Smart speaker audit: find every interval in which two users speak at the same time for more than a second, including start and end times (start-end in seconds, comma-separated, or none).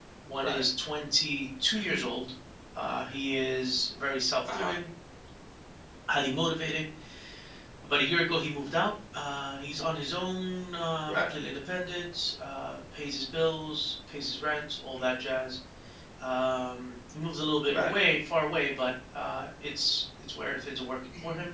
none